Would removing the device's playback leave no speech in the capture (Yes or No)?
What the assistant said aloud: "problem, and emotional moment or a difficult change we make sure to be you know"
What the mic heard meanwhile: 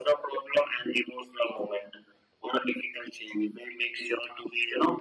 Yes